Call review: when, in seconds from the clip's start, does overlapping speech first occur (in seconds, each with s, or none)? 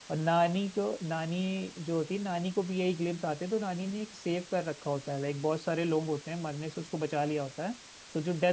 none